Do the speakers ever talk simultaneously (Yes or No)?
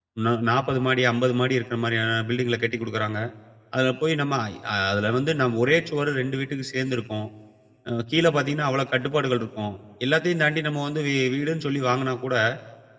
No